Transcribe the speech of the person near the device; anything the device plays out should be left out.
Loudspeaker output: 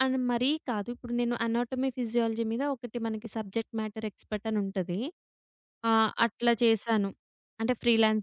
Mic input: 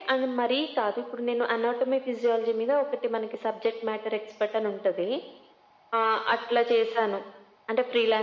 none

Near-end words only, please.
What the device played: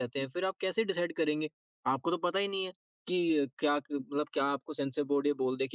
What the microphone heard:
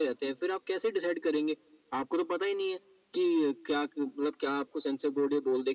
none

